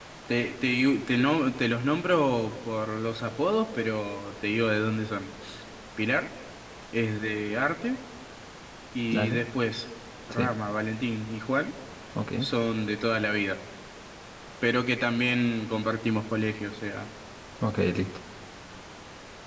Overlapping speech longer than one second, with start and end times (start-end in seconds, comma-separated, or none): none